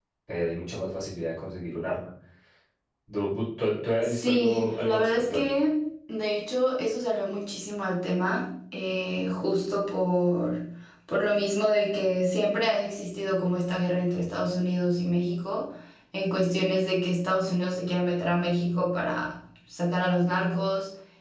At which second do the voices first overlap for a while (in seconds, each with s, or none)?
4.0 s